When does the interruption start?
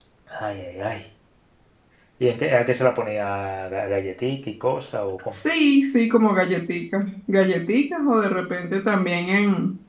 none

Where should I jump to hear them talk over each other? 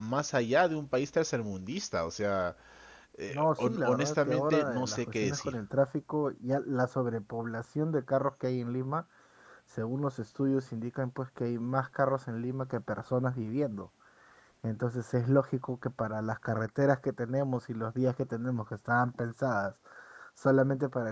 3.3 s

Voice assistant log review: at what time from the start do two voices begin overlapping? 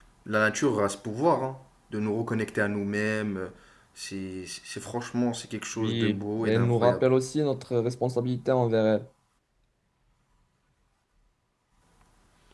5.8 s

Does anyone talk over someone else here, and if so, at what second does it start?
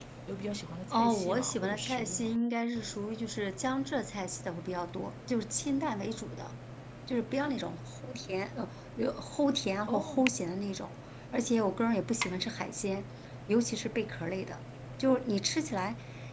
0.9 s

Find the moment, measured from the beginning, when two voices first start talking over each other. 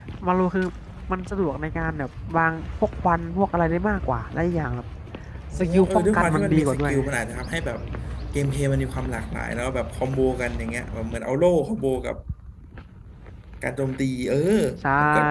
5.6 s

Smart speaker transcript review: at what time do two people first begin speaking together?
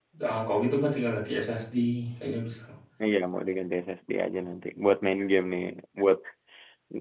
none

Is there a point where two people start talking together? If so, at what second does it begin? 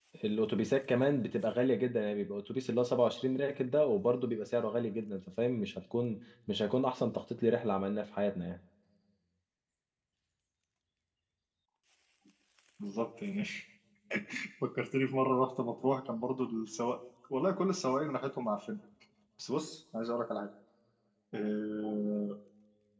none

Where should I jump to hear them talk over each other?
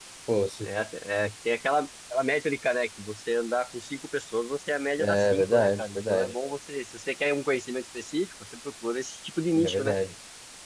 5.0 s

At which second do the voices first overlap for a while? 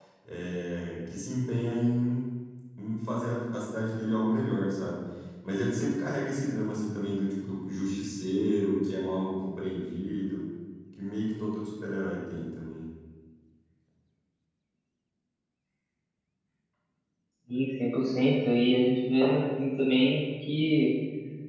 none

